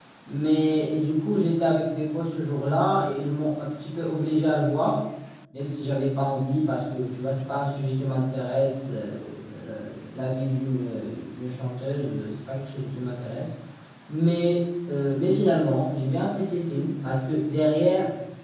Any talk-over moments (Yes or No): No